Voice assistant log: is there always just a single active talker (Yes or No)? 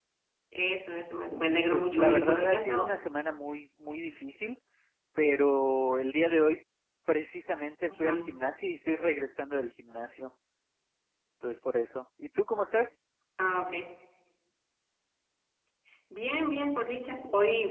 No